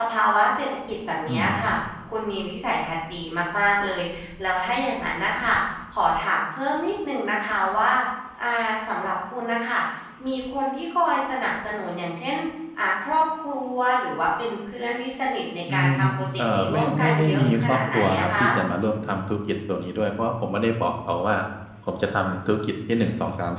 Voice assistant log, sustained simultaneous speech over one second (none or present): present